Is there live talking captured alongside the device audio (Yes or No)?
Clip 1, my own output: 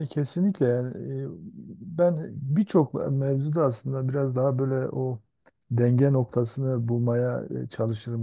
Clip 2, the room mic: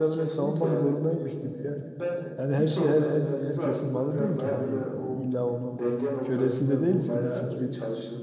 Yes